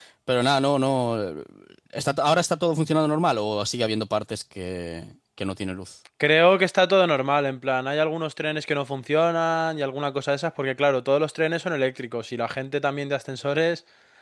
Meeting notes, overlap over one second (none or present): none